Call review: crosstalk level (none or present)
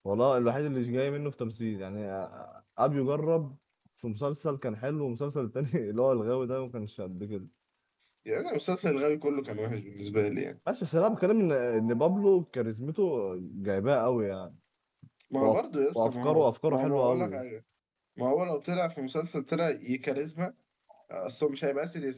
present